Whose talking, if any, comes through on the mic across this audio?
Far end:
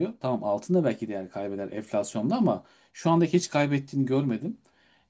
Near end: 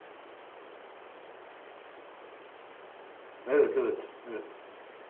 user only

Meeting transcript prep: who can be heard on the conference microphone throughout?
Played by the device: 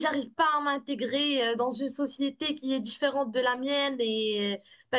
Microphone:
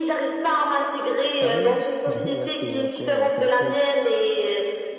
both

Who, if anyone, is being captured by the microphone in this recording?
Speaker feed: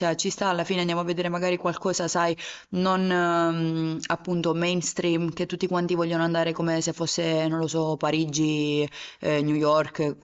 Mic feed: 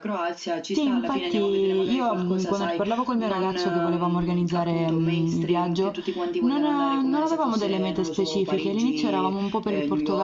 both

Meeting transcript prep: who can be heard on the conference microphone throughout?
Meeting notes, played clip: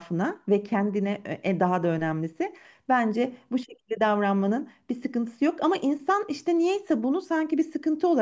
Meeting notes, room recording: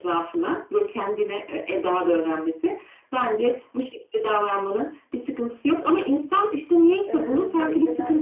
both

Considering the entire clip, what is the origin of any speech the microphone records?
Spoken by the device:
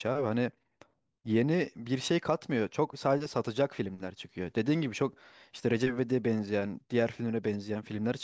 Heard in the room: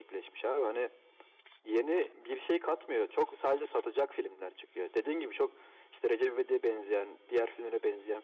echo only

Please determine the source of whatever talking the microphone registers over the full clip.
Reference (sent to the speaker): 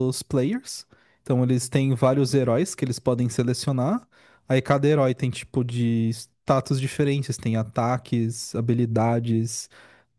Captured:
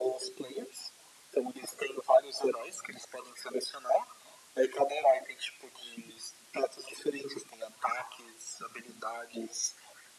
echo only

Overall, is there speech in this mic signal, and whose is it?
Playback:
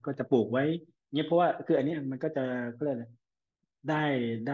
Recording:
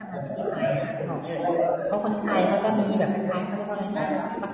both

